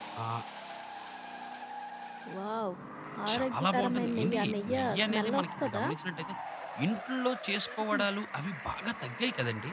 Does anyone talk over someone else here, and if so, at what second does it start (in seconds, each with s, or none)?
3.3 s